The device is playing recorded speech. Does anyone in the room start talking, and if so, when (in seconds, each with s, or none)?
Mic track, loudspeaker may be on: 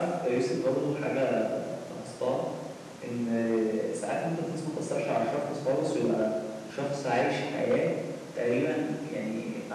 none